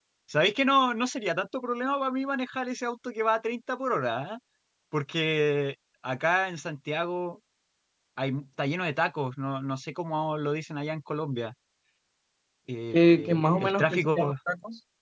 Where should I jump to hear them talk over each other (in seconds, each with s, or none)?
12.9 s